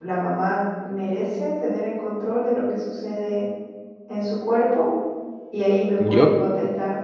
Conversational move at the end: listening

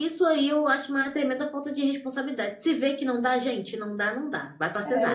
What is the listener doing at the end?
taking over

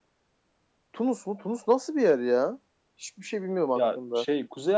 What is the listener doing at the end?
taking over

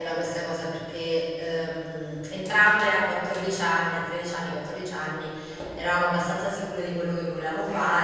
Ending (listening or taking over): listening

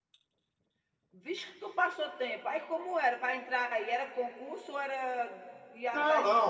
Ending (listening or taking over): taking over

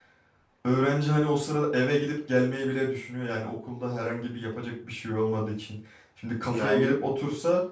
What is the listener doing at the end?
listening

